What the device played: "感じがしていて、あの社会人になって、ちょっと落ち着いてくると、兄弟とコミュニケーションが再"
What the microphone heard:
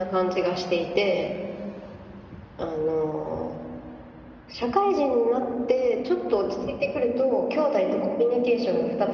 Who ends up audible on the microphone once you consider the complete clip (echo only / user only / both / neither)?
echo only